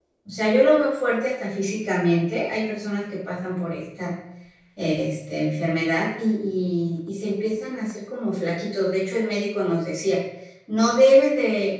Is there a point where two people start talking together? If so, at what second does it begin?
none

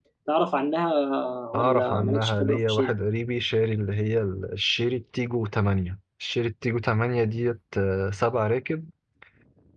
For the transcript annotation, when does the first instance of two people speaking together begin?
1.6 s

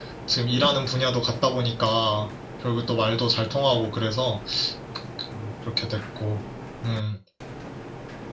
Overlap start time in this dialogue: none

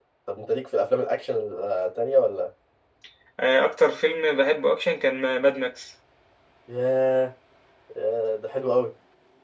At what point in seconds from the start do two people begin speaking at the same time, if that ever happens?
none

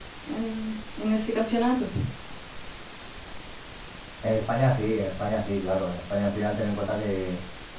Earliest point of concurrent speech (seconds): none

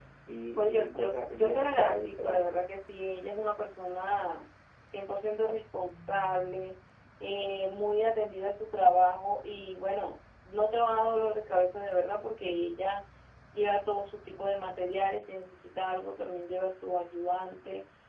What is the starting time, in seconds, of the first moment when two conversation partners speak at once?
0.6 s

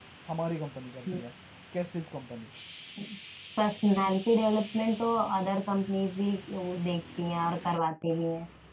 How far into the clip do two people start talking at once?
none

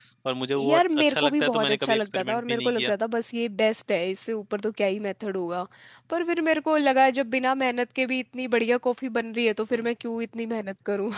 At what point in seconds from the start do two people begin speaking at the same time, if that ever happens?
0.6 s

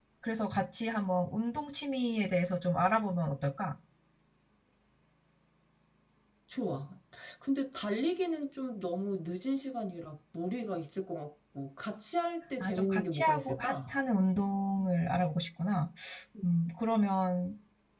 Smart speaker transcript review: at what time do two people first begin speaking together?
12.6 s

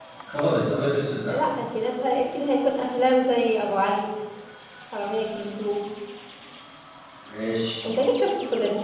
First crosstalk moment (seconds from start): none

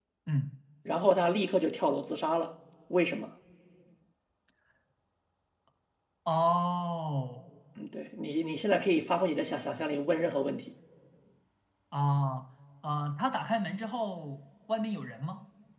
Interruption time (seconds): none

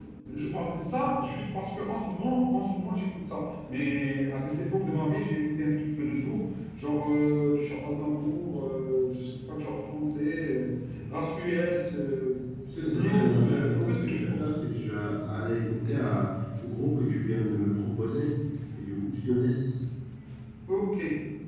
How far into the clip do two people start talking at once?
12.8 s

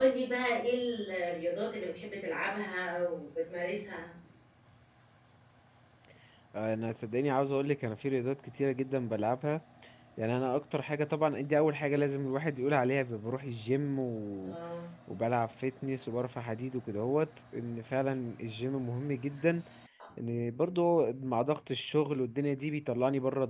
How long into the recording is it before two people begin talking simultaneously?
none

